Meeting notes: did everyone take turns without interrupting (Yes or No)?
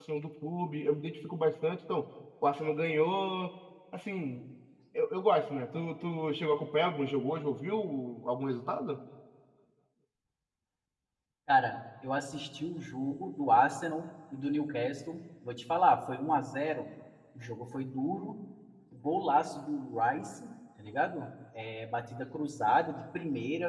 Yes